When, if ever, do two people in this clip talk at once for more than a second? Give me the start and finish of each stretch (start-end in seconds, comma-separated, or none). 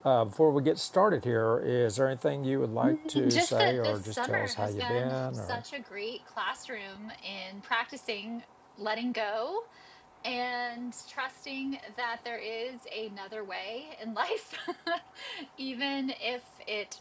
2.8-5.6